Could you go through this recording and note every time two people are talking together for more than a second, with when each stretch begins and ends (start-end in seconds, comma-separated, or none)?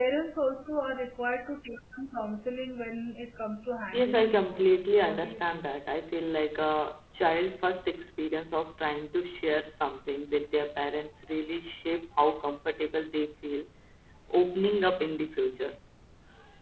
3.9-5.7